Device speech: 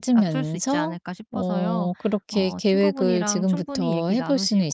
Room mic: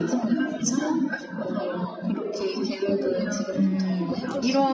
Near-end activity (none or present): present